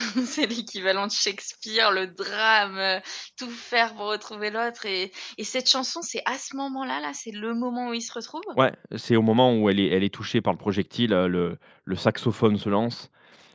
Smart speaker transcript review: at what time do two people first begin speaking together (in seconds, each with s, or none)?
none